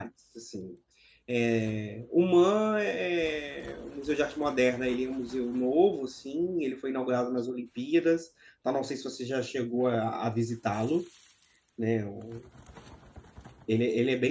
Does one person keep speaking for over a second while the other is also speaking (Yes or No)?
No